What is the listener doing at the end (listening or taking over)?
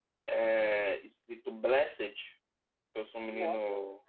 listening